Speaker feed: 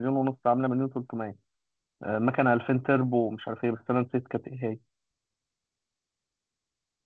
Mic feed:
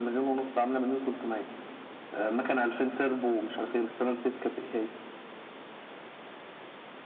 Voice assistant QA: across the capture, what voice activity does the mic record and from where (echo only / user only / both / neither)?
echo only